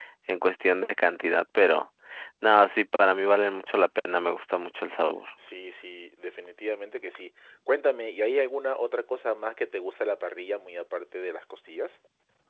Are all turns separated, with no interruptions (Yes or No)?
Yes